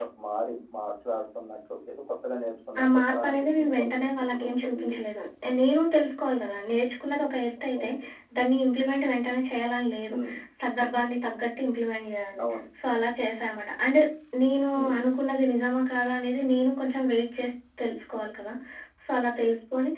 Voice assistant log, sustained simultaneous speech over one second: present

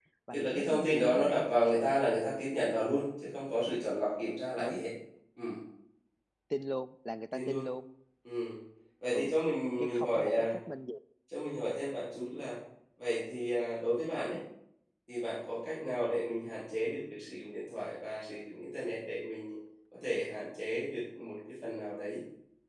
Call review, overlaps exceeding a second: present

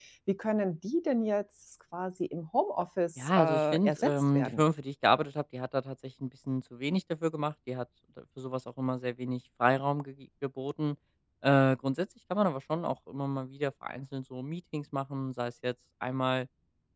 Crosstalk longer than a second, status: present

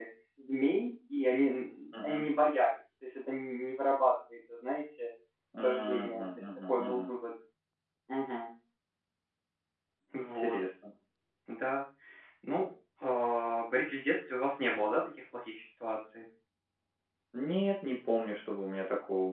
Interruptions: present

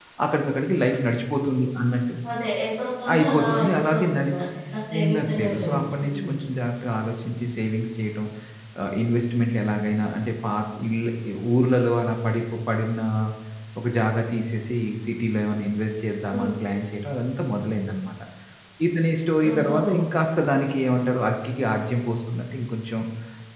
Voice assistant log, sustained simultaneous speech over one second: present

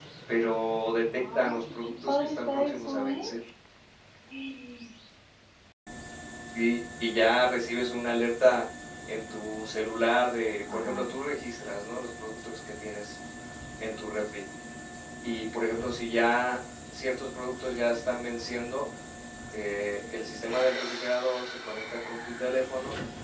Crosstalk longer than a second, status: present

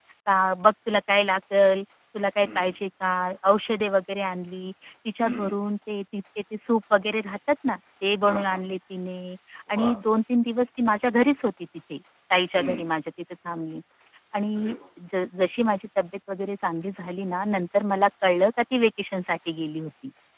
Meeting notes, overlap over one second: none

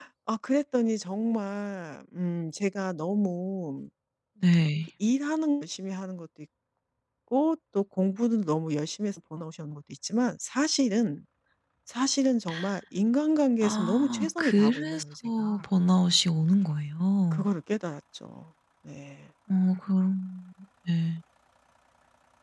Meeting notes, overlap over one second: present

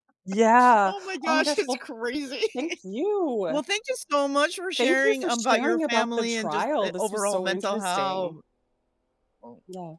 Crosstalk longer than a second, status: present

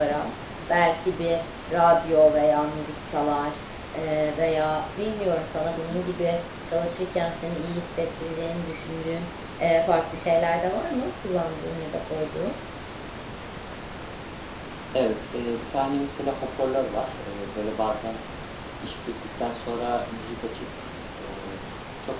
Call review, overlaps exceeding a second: none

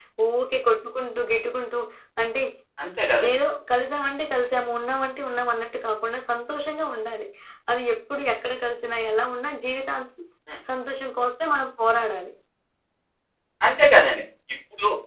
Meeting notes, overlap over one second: none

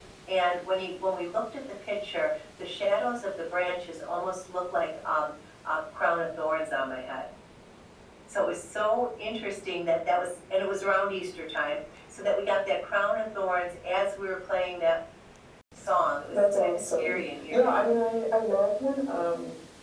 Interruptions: present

